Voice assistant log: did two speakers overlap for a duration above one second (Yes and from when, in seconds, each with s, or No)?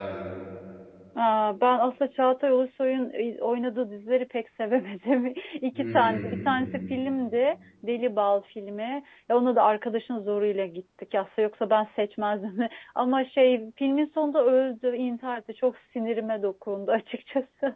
Yes, from 5.7 s